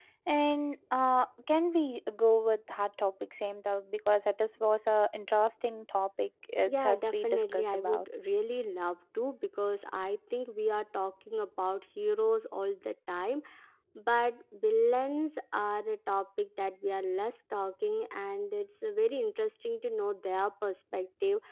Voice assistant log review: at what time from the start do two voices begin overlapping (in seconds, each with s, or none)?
6.7 s